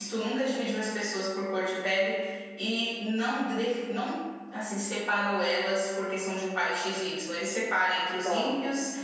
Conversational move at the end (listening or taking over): listening